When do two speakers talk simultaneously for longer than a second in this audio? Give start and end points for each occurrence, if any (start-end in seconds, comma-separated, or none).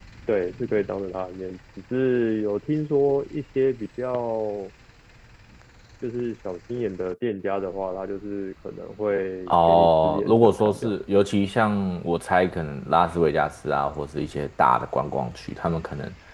9.5-10.9